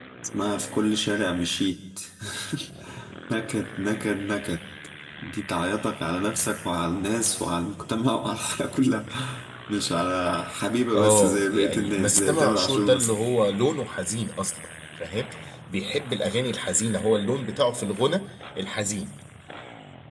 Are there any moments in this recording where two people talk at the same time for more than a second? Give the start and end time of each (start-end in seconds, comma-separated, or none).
10.9-13.2